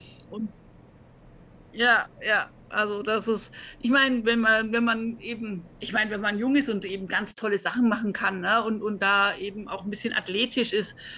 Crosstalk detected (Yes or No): No